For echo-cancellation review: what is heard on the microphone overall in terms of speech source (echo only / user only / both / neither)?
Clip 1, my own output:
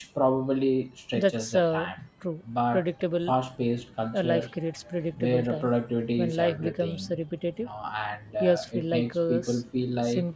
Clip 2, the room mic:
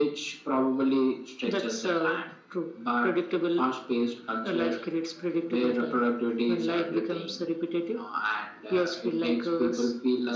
echo only